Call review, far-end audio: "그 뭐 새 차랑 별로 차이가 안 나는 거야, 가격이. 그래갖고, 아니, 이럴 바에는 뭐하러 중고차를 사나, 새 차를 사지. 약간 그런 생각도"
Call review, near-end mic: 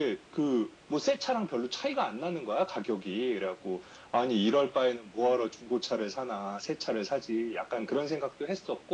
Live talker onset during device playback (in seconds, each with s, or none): none